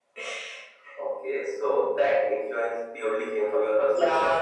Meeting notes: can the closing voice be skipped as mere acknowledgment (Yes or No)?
No